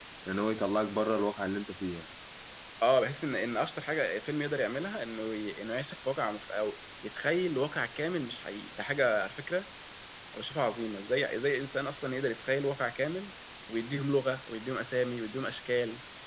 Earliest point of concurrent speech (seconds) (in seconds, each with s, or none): none